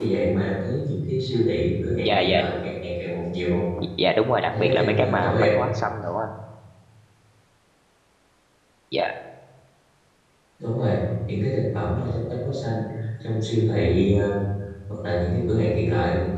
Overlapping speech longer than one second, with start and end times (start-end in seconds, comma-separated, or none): 4.4-5.7